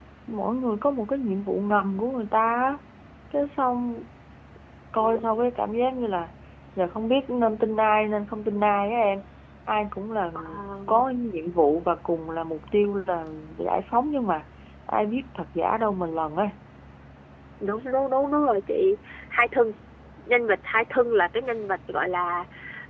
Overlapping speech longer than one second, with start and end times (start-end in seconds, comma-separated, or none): none